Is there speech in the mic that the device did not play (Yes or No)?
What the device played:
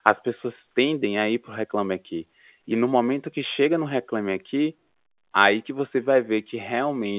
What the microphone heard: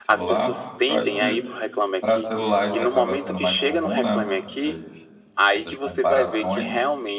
Yes